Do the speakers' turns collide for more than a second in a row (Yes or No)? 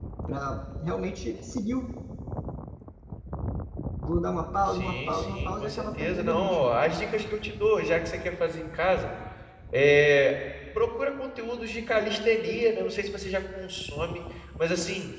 Yes